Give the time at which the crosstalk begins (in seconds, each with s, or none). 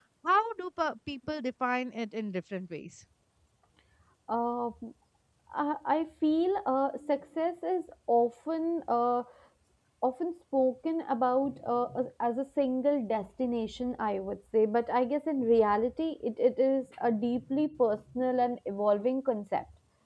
none